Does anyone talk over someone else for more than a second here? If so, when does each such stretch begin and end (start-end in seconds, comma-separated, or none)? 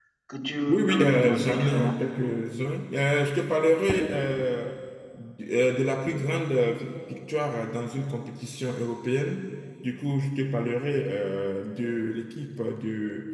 0.7-2.0